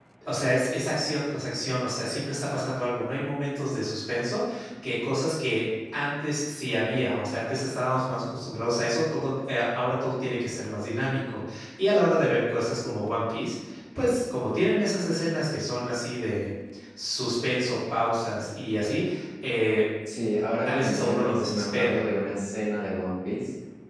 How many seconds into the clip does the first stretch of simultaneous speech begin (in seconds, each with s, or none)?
20.6 s